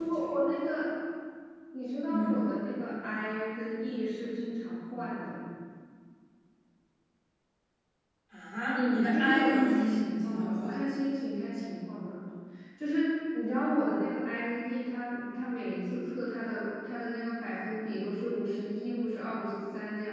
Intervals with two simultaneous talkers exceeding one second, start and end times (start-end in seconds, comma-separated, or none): 8.8-10.8